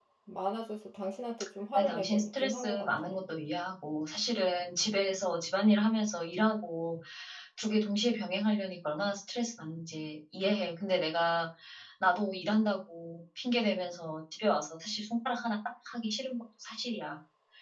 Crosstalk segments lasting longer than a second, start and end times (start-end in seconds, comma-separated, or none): 1.8-3.1